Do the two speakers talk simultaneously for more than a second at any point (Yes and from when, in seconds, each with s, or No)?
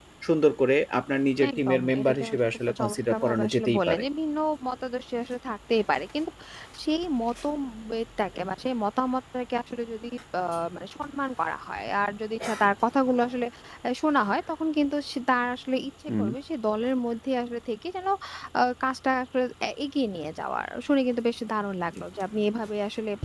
Yes, from 1.4 s